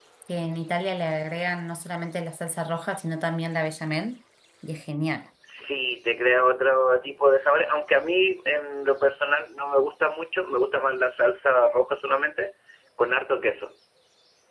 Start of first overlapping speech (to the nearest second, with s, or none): none